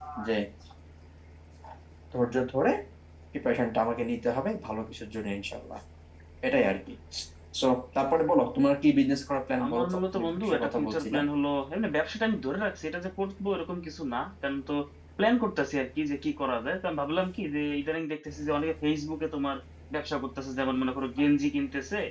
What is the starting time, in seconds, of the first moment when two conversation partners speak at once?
9.6 s

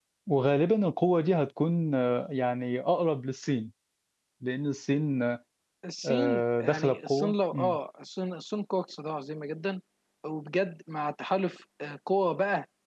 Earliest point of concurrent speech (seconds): 6.0 s

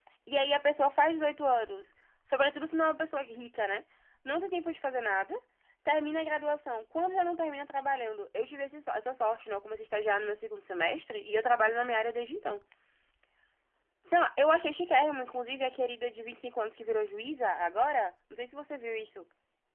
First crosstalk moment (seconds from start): none

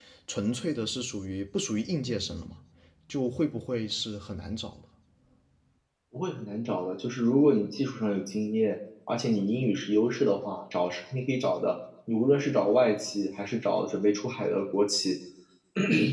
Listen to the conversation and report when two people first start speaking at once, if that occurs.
none

